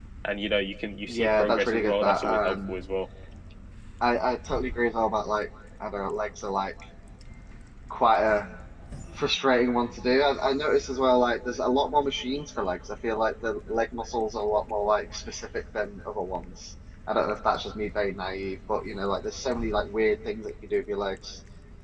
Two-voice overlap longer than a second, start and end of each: 1.1-2.7

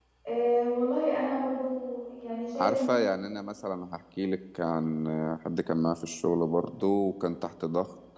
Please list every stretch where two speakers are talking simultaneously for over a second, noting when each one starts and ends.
none

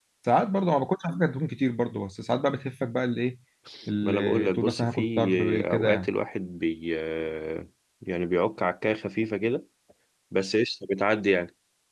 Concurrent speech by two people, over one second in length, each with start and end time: 4.0-6.1

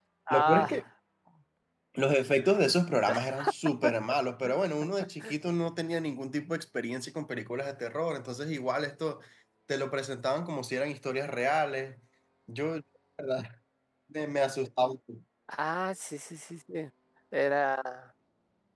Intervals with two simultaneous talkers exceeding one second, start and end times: none

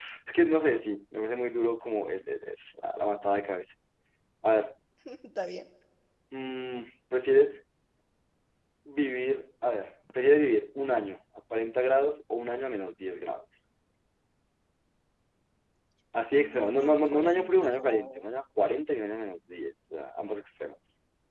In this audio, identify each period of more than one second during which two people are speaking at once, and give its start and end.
16.3-18.2

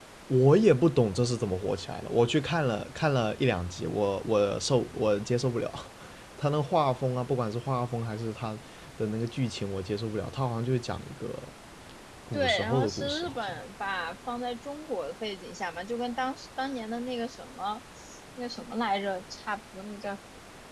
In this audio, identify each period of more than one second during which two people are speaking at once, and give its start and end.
12.3-13.5

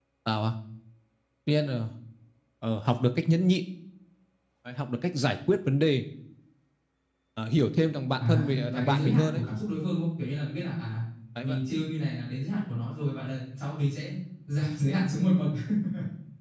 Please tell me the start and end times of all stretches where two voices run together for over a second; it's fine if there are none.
8.2-9.4

